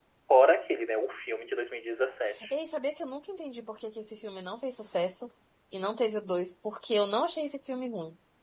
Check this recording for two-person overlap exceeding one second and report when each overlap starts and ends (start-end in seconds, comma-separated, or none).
none